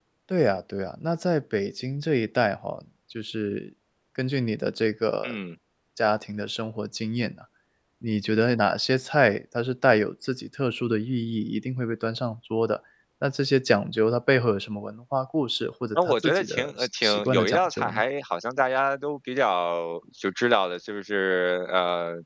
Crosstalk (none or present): present